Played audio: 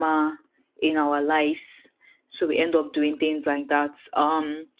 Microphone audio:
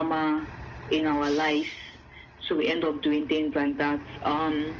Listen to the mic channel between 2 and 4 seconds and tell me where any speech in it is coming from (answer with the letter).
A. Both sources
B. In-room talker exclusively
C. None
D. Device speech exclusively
D